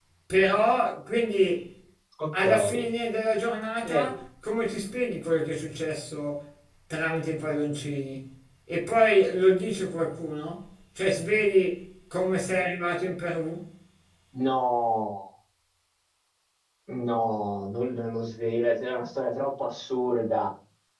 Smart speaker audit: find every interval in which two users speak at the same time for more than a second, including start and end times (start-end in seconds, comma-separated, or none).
none